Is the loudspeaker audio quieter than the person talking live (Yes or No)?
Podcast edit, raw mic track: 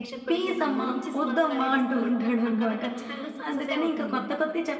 Yes